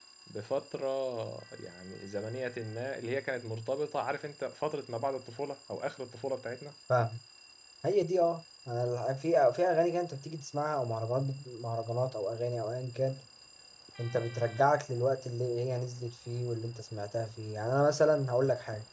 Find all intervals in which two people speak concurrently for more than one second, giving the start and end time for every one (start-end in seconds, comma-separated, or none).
none